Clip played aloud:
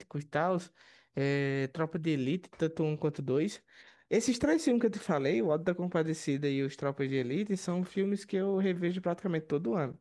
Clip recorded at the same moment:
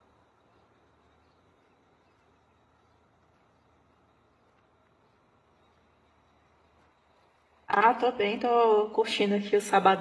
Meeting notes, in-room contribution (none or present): present